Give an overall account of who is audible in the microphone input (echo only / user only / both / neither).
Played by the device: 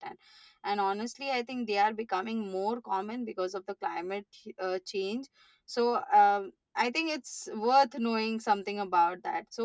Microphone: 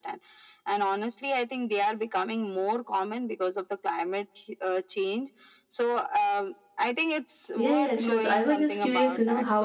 both